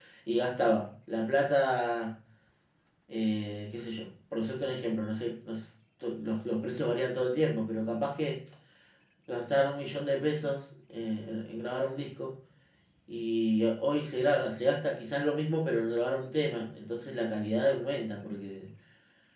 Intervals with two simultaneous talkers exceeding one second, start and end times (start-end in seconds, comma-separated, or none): none